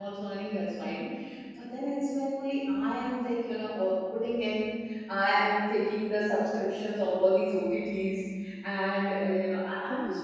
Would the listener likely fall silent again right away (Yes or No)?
No